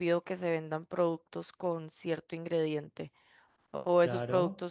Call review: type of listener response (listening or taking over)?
listening